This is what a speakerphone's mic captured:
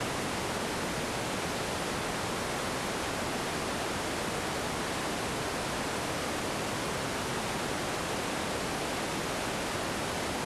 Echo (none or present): none